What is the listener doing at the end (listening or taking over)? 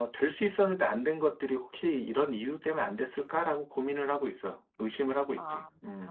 taking over